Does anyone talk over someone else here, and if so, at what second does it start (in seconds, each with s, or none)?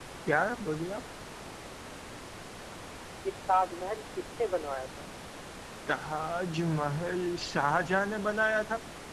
none